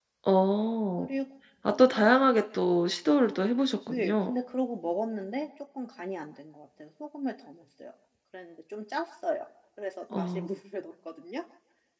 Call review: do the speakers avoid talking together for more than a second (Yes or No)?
Yes